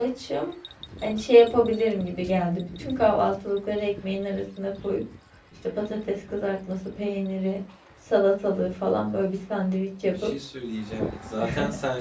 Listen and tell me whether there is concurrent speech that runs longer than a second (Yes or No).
No